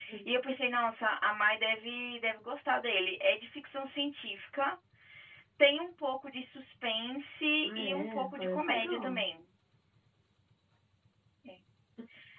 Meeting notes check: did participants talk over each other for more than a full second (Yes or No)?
Yes